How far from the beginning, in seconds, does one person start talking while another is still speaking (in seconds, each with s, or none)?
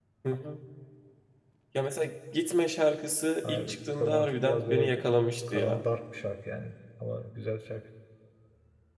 3.4 s